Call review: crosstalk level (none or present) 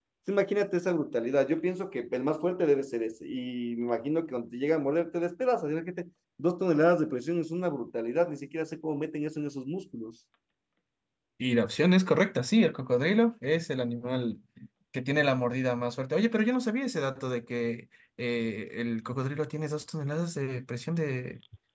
none